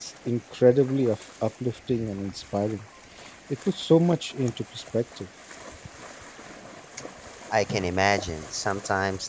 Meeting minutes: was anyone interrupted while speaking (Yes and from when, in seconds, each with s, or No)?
No